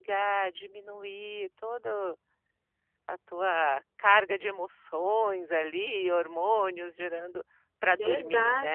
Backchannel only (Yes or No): No